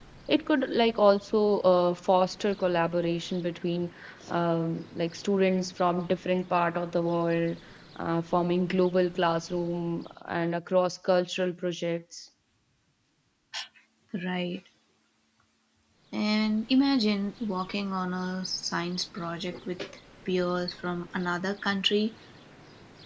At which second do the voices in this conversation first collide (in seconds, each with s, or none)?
none